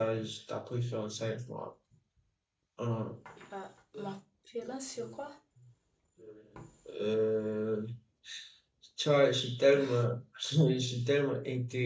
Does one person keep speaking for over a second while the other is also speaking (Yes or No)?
No